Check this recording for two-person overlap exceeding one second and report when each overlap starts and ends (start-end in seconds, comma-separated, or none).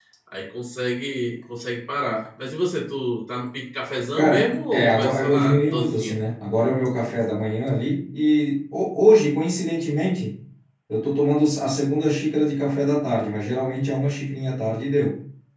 4.2-6.2